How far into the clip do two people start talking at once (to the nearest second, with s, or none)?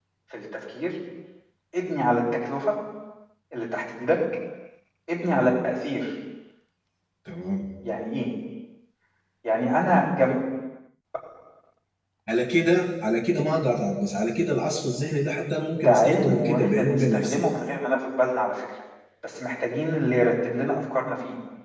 16 s